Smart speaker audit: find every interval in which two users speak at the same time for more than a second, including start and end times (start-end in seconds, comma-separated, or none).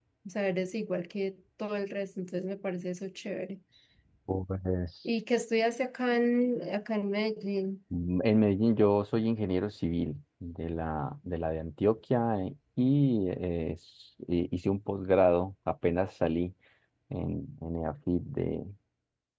none